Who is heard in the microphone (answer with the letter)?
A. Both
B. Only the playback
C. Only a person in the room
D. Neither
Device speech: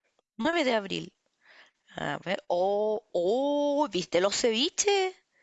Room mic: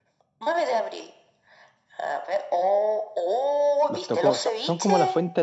A